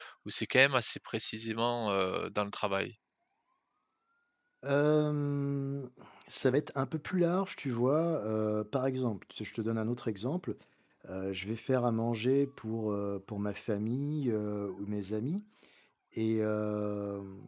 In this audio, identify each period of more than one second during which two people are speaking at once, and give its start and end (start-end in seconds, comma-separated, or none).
none